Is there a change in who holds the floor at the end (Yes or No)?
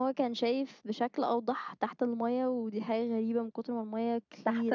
No